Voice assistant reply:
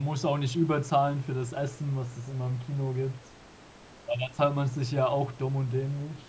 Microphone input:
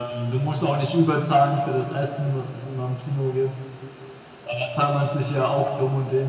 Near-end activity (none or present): none